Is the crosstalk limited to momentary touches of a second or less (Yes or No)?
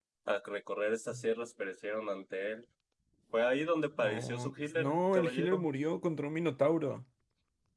No